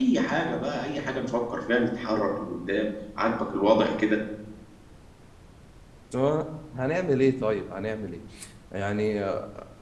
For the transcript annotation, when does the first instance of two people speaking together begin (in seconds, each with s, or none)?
none